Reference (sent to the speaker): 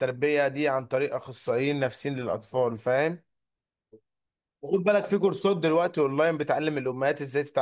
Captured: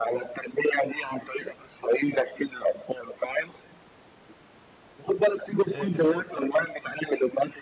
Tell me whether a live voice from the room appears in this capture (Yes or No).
Yes